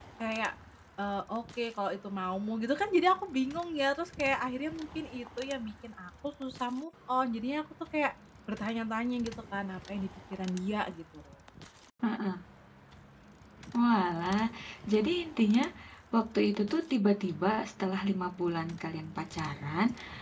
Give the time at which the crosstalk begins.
none

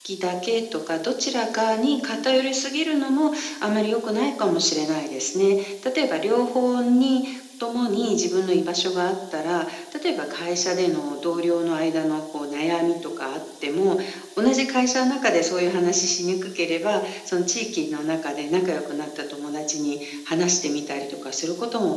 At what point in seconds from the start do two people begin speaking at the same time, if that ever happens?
none

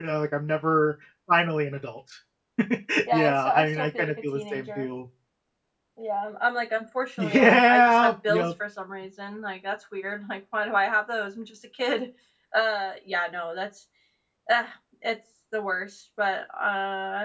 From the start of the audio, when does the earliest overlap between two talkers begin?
3.1 s

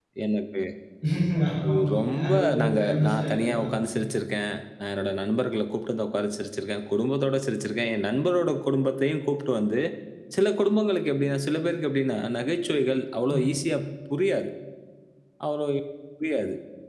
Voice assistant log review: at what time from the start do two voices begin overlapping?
1.7 s

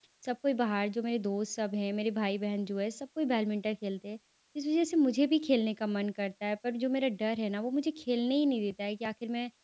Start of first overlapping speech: none

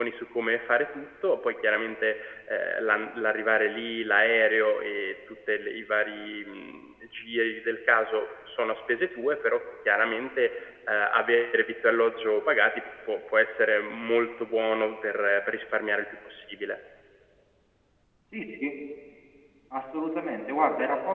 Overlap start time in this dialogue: none

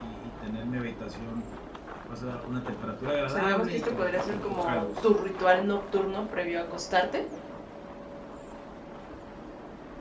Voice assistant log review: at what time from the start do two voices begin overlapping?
3.3 s

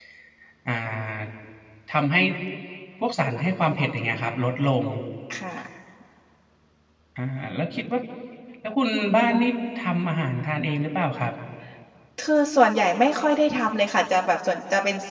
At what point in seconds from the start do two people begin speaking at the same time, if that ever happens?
none

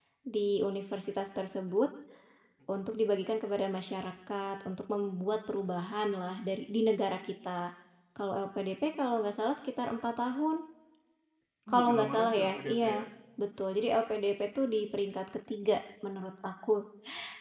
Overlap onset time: 11.7 s

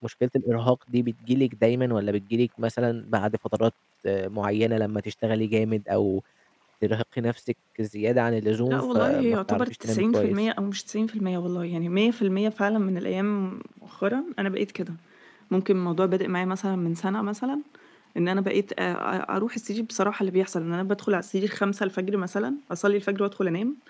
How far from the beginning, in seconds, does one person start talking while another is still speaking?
8.7 s

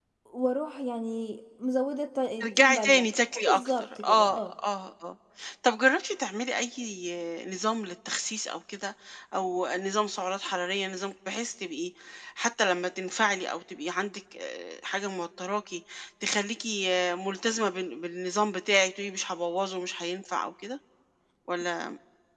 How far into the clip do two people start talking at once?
2.4 s

